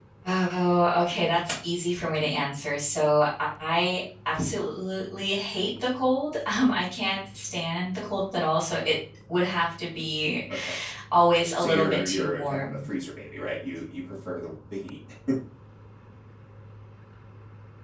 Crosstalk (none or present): present